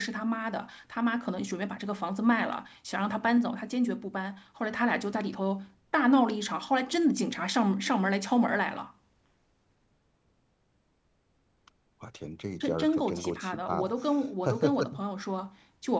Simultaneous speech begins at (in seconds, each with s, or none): 12.6 s